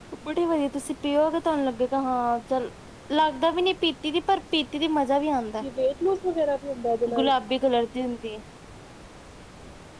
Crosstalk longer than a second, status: none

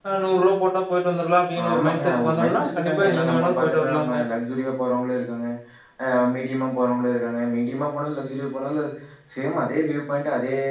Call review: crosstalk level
present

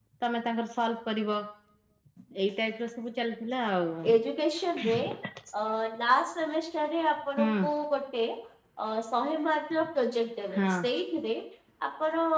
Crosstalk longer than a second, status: none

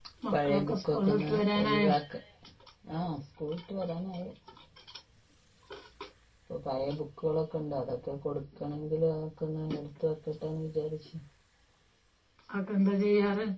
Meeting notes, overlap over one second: present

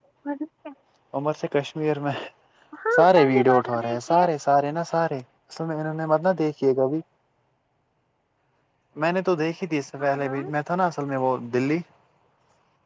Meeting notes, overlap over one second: present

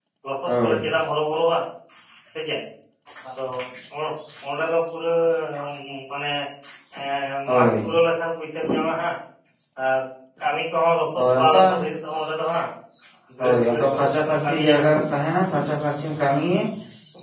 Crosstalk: present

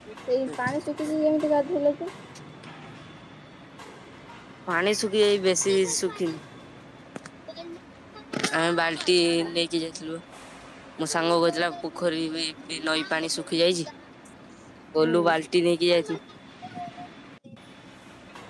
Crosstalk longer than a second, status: none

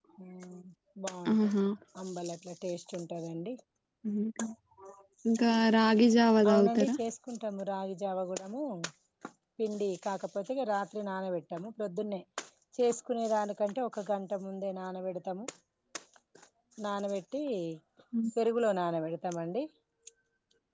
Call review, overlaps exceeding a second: none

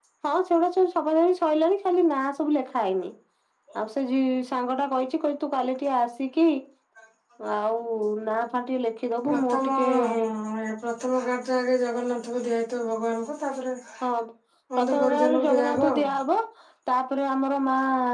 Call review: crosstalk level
present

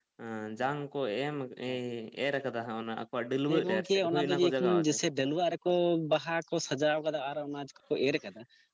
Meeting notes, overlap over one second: present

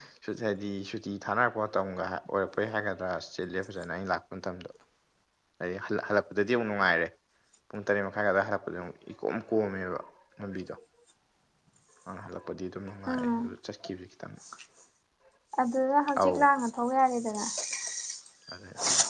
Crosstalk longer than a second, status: none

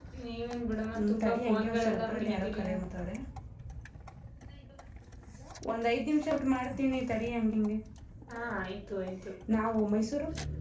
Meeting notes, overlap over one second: present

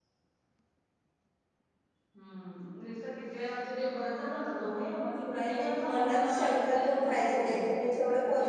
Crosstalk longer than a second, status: present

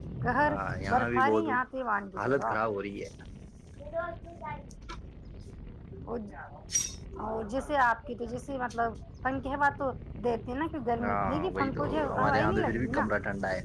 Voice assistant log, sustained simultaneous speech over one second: present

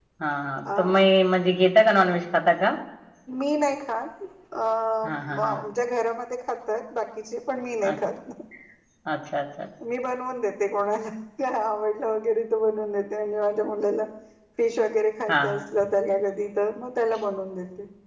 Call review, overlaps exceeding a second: none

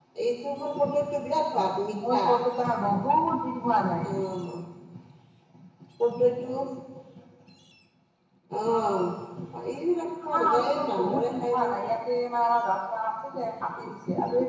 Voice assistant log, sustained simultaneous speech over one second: present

